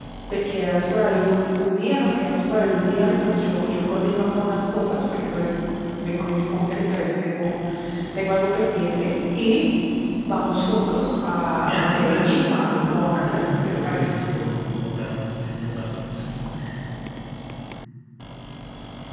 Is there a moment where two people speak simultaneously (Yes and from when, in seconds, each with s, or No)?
Yes, from 11.6 s